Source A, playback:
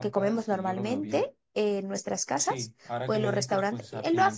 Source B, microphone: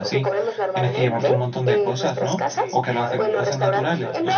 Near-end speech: present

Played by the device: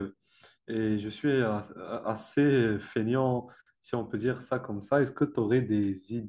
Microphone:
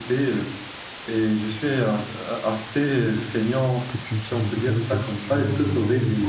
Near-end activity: present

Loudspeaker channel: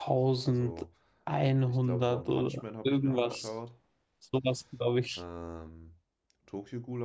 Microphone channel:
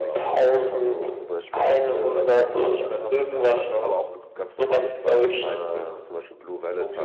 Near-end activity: present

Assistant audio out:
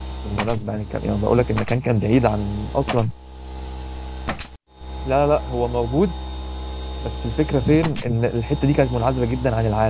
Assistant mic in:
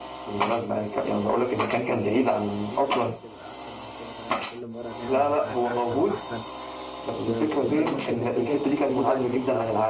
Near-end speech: present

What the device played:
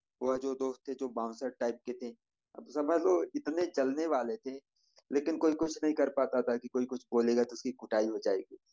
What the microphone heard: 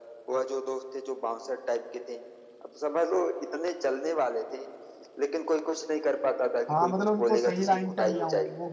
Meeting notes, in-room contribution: present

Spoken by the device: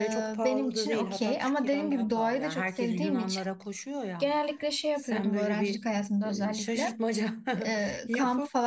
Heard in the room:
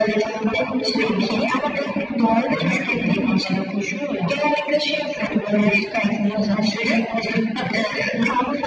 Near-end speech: present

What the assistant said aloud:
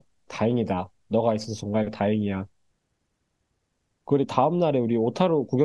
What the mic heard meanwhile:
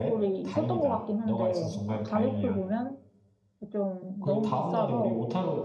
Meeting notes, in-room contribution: present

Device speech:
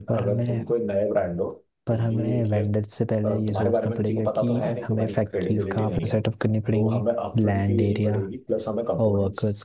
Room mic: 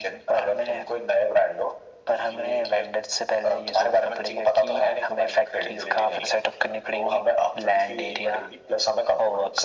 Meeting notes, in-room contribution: none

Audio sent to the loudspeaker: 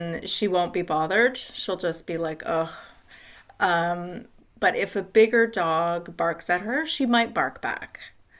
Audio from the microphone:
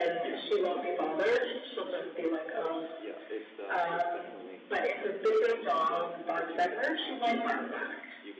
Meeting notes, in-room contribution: present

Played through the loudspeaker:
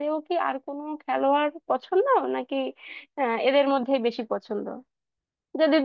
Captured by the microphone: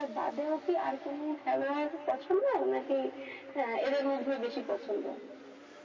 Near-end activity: none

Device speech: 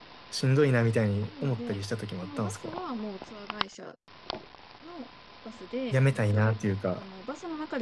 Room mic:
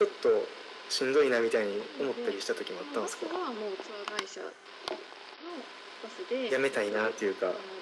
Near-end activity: none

